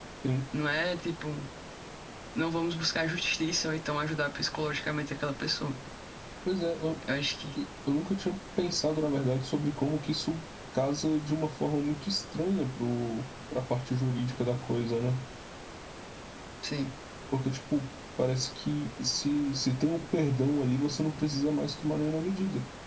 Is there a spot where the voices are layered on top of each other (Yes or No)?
No